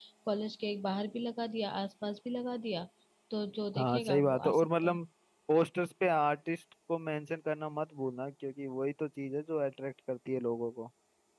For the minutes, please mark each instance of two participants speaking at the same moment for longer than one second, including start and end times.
3.8-5.0

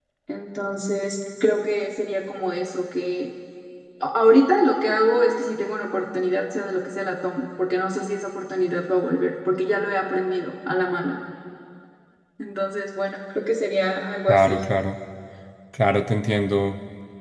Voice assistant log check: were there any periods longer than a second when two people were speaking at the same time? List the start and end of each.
none

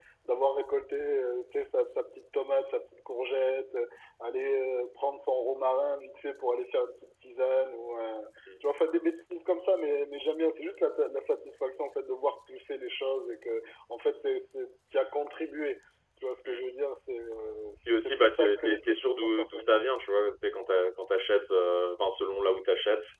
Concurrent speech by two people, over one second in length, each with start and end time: 17.9-19.8

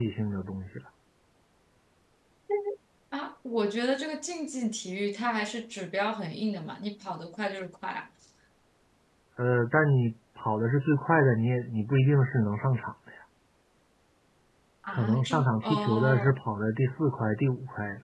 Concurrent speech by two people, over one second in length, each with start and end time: 14.9-16.4

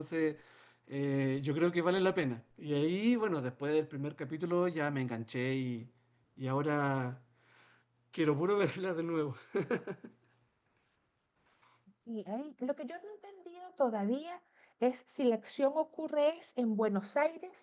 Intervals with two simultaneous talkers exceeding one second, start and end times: none

